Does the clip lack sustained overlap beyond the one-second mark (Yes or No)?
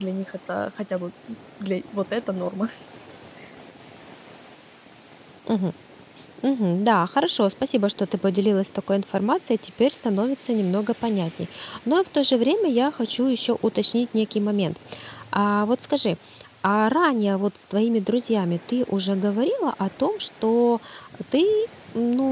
Yes